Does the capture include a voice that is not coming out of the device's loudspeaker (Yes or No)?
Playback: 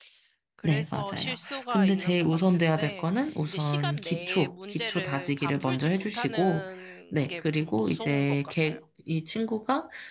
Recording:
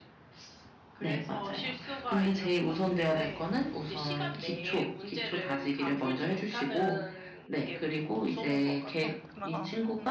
Yes